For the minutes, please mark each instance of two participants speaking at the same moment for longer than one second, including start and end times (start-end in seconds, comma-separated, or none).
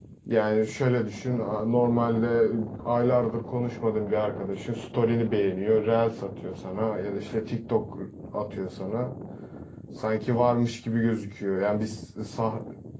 none